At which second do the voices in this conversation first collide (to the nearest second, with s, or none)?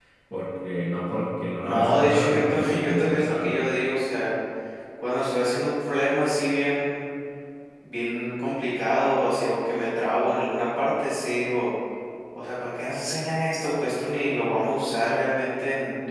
2 s